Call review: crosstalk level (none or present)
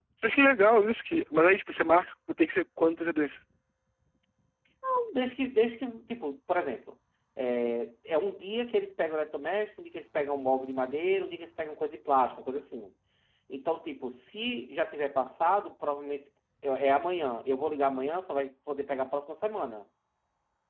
none